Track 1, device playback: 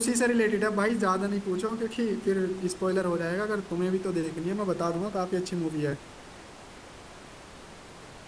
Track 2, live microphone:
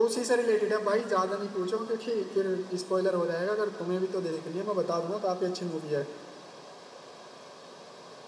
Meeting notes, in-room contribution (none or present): none